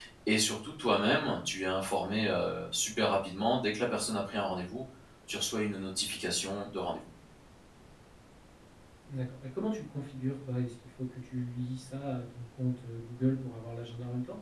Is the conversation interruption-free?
Yes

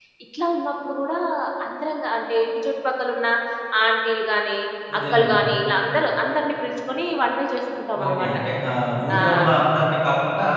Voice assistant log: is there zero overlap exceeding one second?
Yes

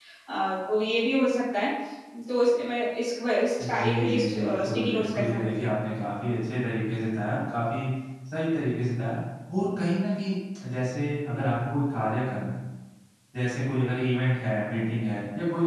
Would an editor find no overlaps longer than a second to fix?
No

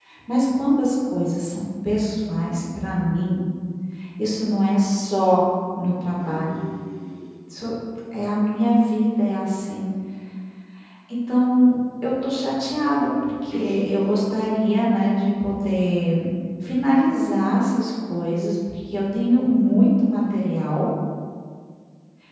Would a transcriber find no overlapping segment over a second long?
Yes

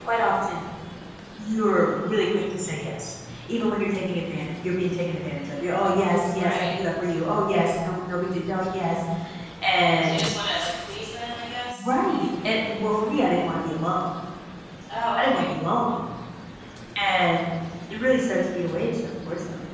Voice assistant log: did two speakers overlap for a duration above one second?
No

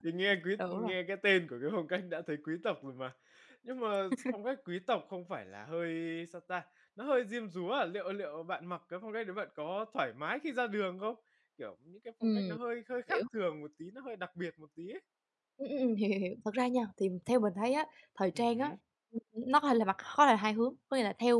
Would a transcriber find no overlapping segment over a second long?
Yes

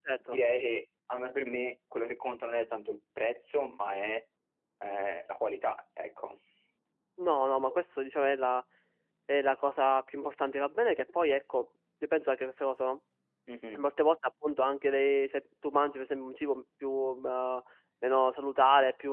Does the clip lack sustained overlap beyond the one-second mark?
Yes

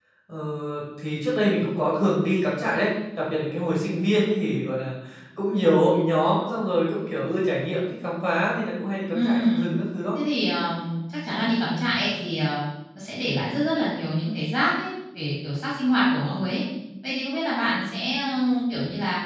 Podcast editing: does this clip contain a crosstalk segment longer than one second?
No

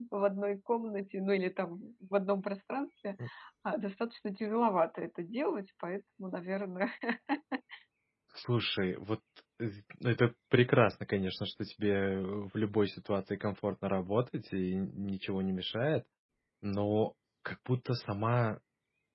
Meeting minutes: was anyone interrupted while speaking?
No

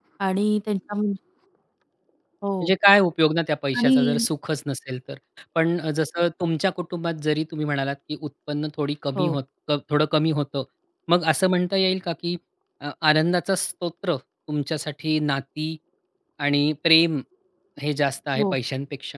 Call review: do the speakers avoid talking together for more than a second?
Yes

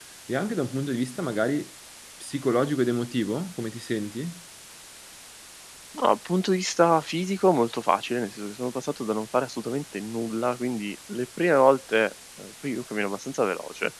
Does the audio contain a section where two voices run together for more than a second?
No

